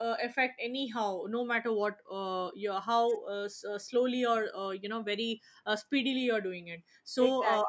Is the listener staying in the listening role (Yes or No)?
Yes